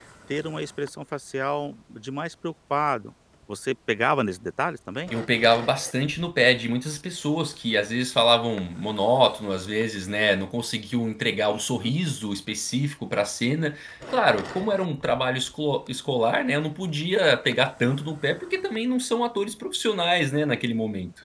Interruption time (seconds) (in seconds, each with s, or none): none